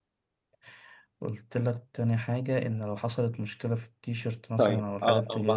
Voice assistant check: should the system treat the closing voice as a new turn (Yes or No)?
Yes